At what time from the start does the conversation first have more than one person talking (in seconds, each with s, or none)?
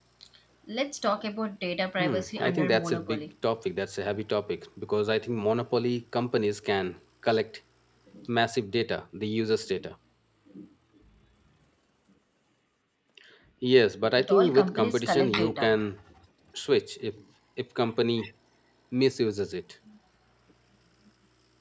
2.0 s